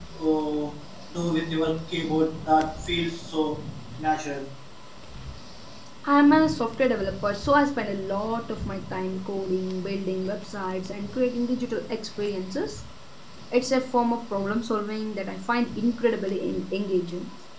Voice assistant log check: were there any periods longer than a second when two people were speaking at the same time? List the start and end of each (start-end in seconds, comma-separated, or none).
none